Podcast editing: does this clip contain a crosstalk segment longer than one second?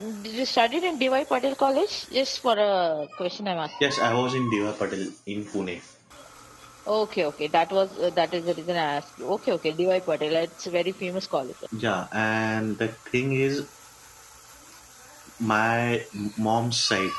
No

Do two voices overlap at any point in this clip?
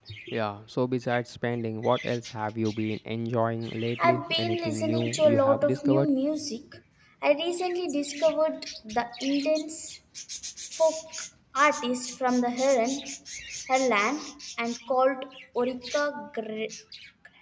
Yes, from 4.0 s

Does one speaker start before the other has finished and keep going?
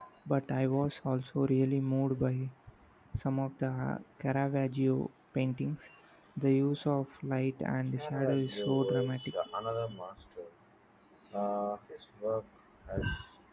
Yes, from 8.0 s

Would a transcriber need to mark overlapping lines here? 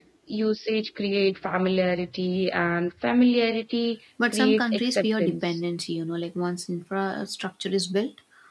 Yes, from 4.2 s

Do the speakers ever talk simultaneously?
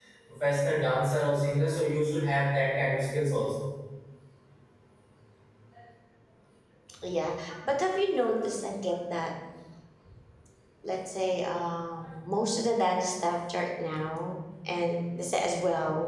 No

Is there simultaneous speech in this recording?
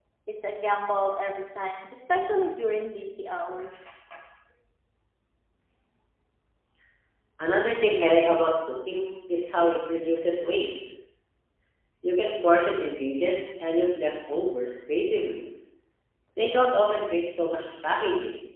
No

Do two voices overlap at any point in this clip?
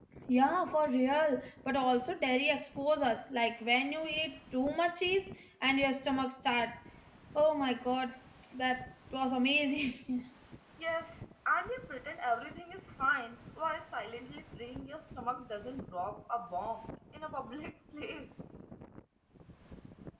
No

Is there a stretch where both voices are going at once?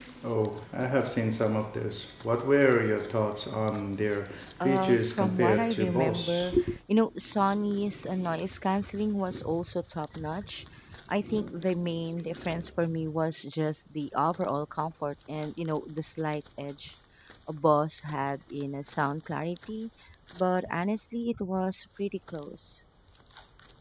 Yes, from 4.6 s

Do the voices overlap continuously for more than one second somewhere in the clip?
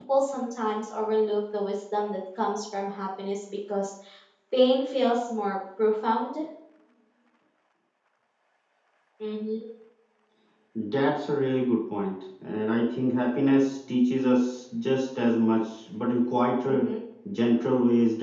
No

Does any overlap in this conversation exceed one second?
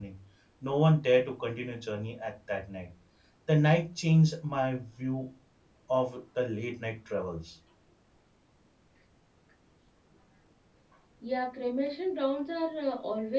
No

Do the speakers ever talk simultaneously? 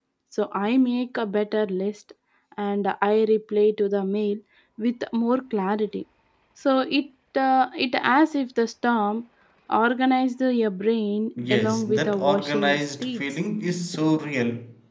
Yes, from 11.4 s

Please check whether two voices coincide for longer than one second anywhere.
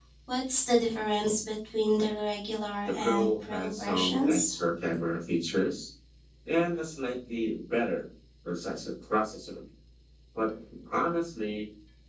Yes, from 2.8 s

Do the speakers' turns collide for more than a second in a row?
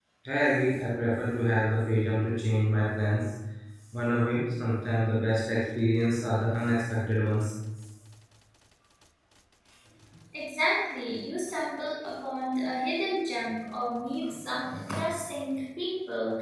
No

